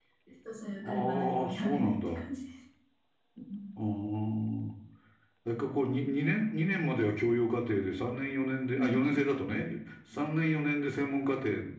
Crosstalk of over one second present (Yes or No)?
Yes